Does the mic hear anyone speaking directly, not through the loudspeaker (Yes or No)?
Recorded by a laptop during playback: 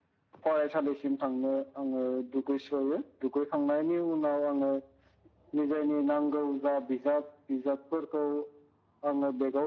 No